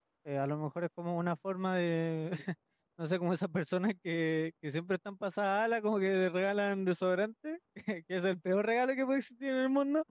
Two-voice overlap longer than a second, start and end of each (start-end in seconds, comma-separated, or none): none